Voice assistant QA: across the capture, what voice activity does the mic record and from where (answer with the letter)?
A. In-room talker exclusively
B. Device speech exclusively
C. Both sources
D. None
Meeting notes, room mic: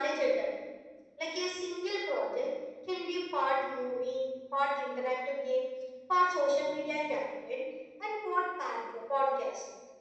B